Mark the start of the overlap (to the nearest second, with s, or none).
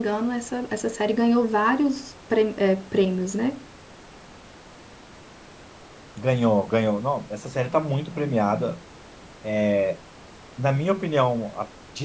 none